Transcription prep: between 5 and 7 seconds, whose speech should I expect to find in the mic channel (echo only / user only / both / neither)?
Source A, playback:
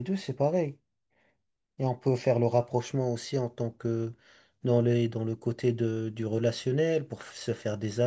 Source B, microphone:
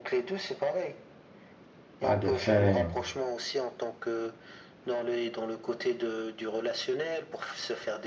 echo only